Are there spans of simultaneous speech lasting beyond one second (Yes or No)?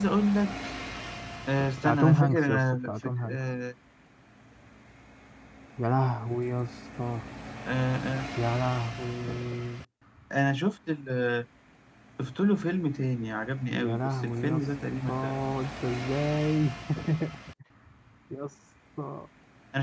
Yes